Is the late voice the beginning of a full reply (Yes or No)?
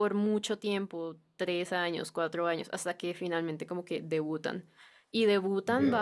No